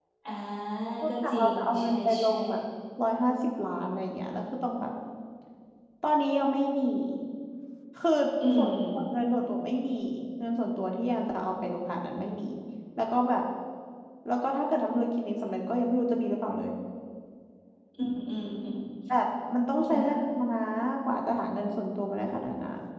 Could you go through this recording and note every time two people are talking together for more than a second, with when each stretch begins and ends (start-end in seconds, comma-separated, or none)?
1.1-2.3